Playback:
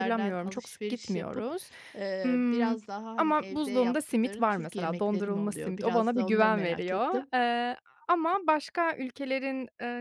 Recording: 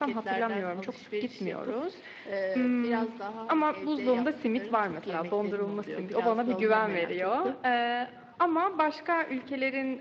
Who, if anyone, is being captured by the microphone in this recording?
echo only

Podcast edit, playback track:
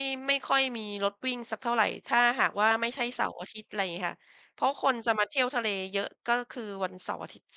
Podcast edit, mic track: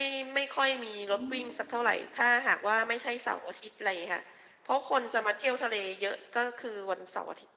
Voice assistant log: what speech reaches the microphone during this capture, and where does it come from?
both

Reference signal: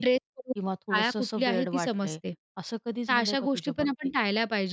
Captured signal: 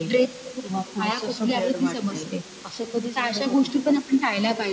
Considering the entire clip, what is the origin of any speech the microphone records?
echo only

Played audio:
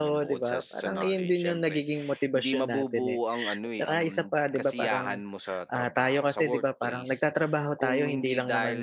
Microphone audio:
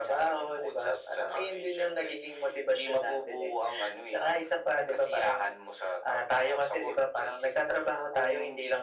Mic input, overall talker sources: echo only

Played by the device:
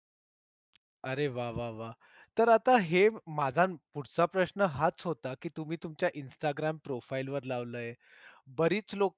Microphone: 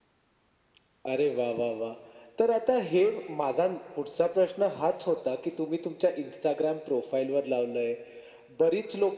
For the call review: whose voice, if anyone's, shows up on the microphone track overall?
echo only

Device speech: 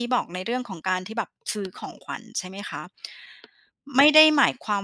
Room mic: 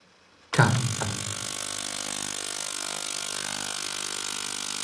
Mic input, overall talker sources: user only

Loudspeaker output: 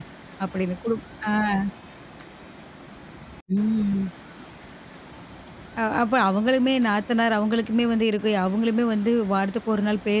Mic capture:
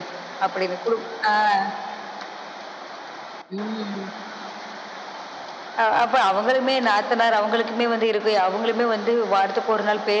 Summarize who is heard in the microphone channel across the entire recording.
echo only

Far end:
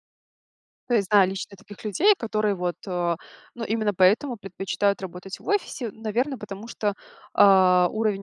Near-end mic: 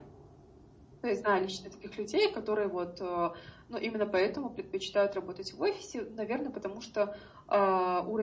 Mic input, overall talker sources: echo only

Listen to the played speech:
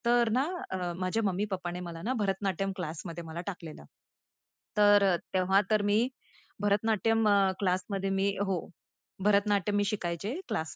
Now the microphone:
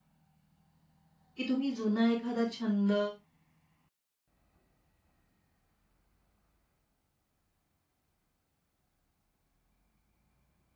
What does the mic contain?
user only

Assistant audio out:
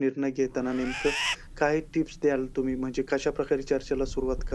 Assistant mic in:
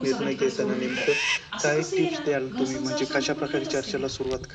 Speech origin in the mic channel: both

